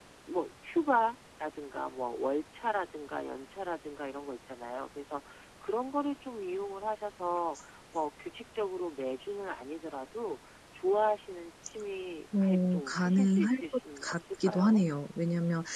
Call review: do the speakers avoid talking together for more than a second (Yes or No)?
No